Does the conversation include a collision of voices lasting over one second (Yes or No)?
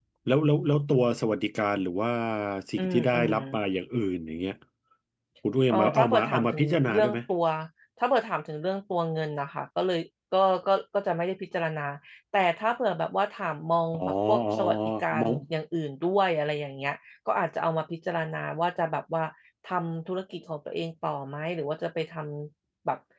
Yes